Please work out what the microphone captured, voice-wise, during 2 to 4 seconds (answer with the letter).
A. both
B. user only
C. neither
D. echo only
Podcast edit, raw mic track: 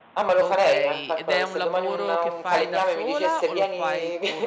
A